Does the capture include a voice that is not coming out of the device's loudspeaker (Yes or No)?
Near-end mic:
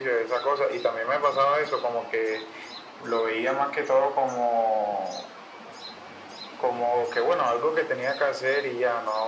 No